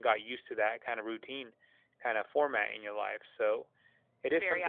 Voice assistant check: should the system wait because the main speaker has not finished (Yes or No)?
No